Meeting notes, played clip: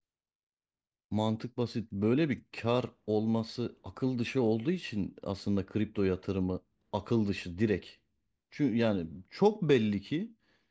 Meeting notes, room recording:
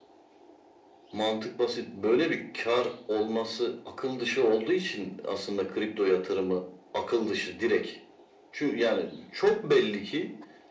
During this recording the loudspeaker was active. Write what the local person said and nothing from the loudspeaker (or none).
none